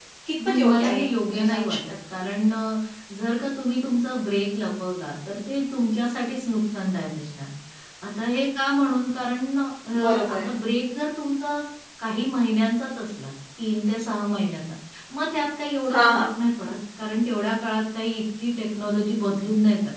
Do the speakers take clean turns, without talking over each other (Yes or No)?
No